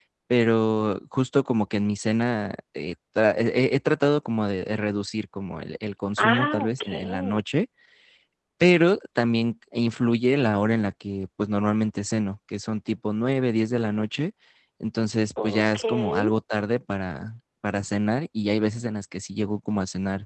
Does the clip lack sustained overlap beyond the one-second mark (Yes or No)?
No